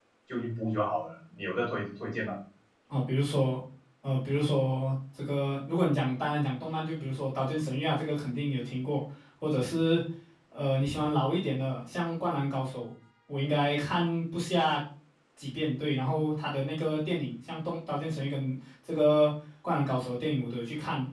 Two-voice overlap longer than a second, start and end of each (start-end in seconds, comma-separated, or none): none